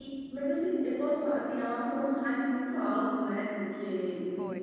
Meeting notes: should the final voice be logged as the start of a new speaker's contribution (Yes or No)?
No